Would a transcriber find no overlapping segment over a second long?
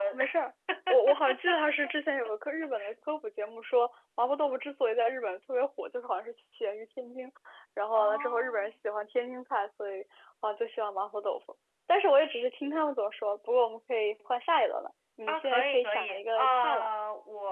No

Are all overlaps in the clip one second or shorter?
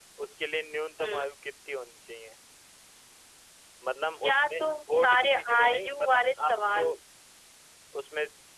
No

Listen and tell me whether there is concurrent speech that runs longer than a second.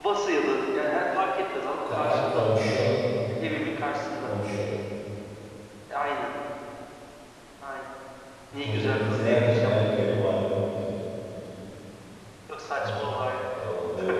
Yes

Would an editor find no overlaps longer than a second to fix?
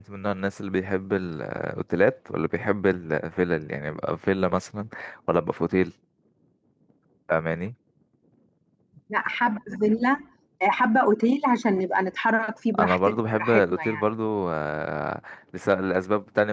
No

